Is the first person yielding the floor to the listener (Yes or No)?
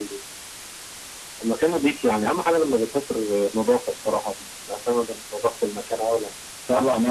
Yes